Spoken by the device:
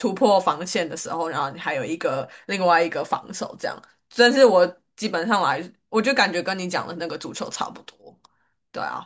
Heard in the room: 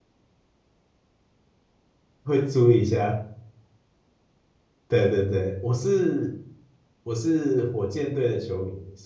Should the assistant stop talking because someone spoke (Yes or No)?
Yes